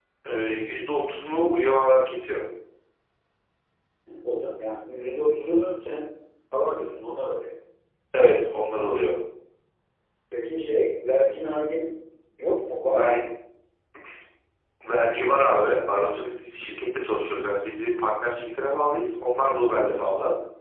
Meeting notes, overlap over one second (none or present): none